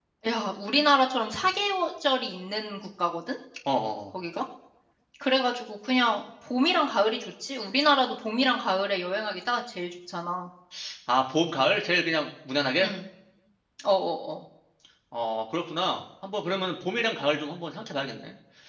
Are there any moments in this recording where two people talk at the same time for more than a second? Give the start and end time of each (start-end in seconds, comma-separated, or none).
none